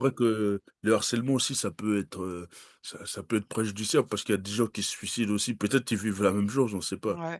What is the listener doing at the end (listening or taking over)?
taking over